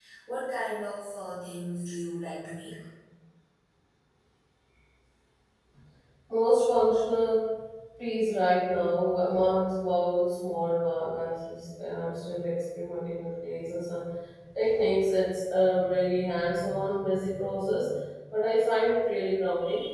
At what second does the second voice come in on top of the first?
none

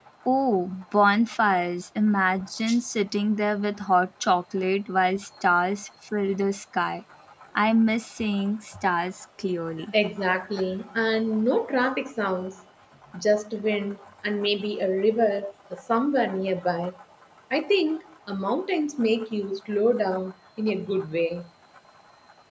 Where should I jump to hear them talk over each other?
none

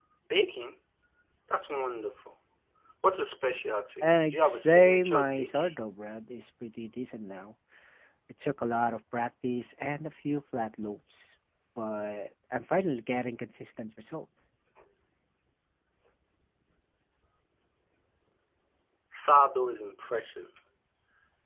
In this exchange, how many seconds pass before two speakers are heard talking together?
4.0 s

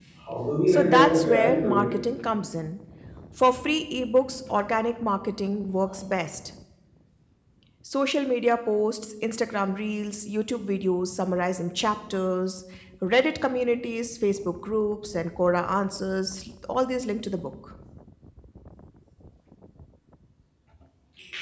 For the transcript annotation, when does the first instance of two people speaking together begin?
0.7 s

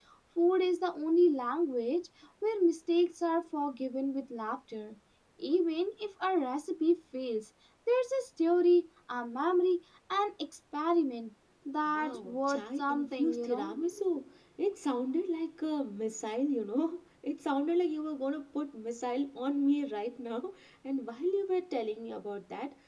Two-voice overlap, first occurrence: 11.9 s

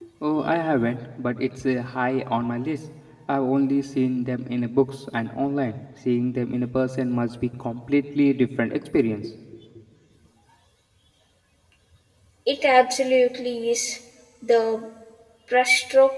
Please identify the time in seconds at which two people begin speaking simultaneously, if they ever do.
none

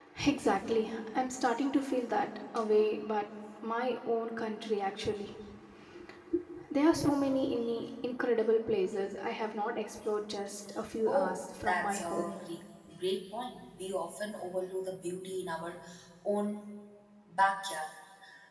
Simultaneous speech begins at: 11.0 s

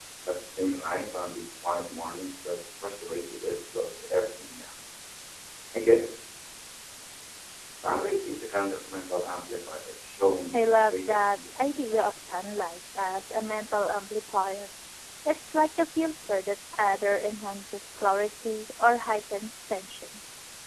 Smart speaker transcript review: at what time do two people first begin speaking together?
10.5 s

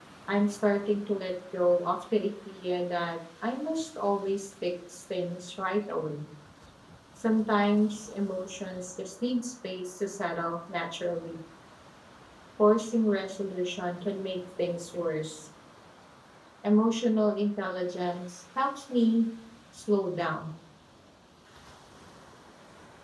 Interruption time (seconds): none

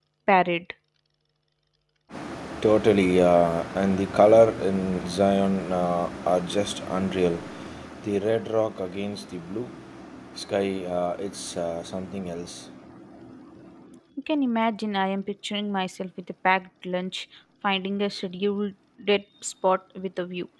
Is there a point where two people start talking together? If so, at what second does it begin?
none

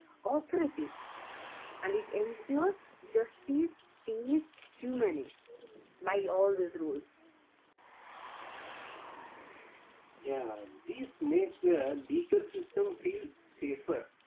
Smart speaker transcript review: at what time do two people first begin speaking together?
none

